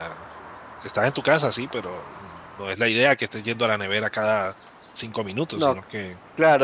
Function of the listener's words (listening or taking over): taking over